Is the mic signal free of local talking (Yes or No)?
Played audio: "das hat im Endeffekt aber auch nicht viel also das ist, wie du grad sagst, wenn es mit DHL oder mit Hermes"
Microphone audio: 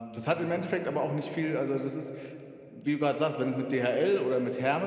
Yes